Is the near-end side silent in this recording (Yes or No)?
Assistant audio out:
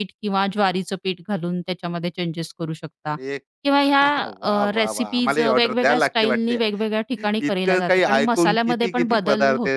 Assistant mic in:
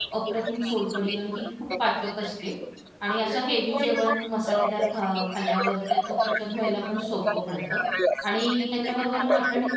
No